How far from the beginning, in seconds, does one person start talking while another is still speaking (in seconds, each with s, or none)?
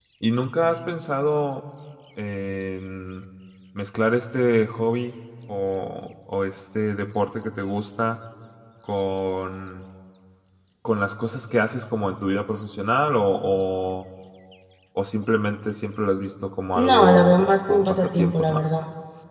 16.8 s